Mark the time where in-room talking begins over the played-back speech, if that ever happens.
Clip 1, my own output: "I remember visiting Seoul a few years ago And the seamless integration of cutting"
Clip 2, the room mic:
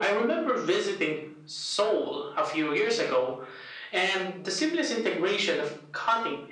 none

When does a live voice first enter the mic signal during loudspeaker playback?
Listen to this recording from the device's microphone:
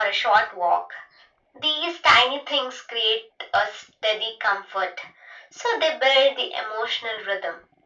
none

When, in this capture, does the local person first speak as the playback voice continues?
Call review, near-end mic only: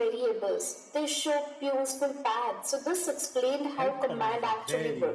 4 s

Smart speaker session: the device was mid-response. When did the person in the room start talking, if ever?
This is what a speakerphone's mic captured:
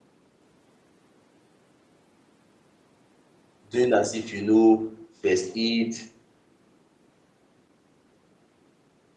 4 s

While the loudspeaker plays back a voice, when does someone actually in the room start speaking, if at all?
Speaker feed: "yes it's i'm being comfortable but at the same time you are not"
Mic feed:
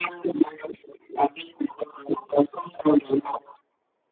none

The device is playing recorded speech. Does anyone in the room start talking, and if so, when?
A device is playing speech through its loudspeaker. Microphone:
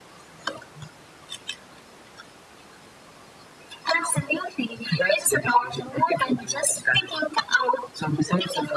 none

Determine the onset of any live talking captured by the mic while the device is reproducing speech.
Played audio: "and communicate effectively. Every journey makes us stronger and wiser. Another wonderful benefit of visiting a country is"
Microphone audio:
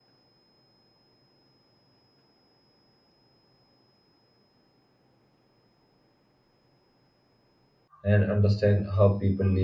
8 s

